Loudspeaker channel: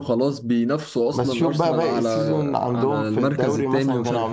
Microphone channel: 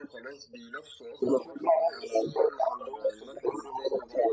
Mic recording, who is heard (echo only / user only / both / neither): echo only